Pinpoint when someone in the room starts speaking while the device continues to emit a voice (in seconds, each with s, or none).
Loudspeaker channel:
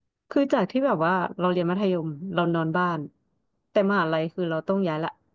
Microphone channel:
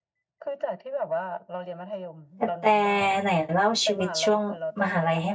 2.4 s